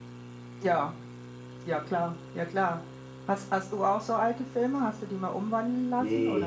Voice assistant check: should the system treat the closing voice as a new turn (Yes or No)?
Yes